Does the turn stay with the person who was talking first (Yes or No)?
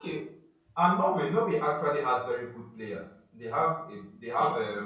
Yes